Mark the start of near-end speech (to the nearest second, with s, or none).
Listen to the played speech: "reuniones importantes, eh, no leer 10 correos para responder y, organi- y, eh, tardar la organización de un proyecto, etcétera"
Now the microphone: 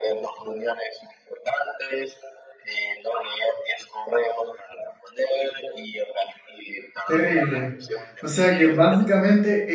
7 s